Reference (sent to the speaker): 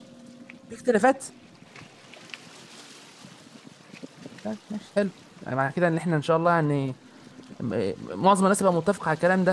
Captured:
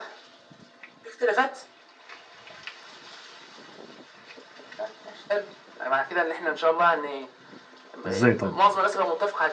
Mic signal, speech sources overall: both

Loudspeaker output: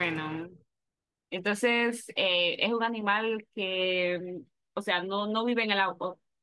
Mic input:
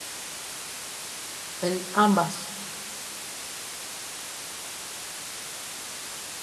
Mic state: user only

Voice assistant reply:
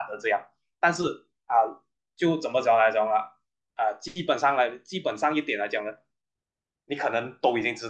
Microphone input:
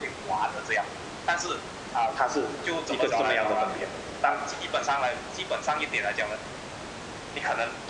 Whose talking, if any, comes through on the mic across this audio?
both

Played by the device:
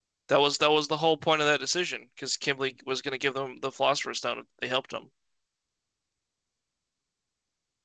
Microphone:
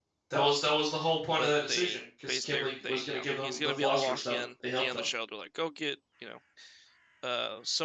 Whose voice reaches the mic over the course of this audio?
both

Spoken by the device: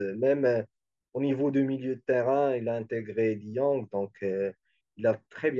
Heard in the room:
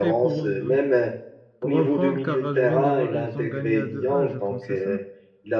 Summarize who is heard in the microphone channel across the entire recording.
both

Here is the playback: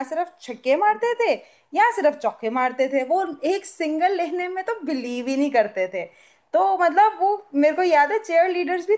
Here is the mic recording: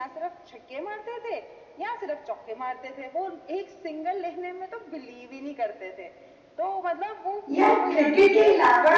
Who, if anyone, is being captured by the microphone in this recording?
both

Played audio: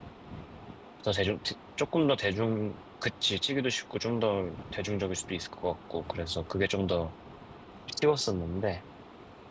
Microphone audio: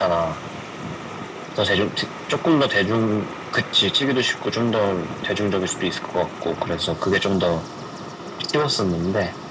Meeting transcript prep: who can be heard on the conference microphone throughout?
echo only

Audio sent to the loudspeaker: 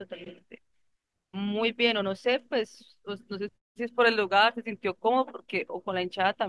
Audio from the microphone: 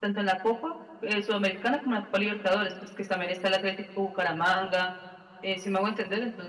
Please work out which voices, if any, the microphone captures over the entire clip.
user only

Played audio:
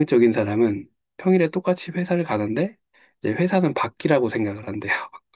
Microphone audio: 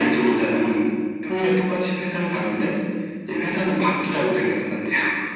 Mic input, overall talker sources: echo only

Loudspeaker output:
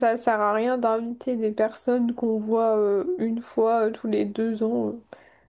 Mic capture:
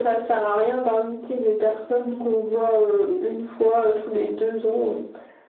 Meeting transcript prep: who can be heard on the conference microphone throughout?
echo only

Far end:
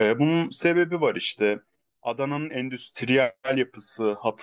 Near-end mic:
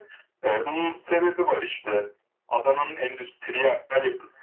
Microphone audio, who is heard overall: echo only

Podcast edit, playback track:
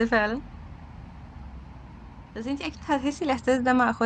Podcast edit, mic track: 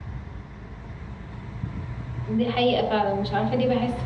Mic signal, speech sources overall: user only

